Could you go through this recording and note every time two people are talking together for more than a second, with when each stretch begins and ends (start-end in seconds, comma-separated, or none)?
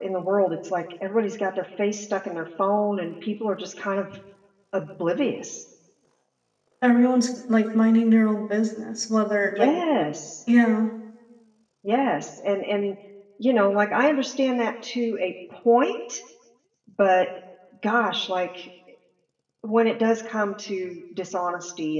none